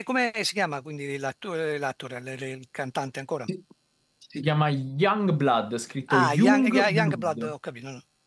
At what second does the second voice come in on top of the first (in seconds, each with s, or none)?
6.1 s